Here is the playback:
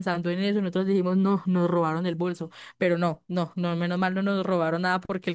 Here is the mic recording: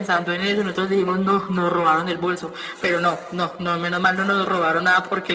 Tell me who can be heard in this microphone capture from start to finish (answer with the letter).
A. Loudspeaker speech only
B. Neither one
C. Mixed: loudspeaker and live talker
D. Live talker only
A